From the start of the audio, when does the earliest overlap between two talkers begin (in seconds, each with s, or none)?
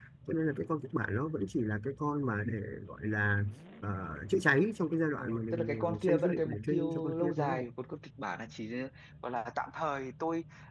5.2 s